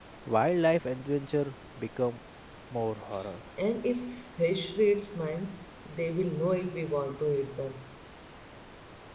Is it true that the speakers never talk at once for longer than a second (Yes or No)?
Yes